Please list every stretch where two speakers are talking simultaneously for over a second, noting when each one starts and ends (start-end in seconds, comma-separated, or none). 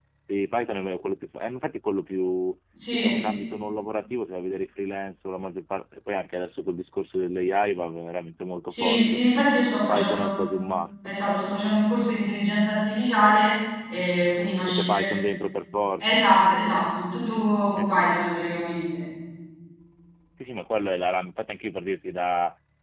none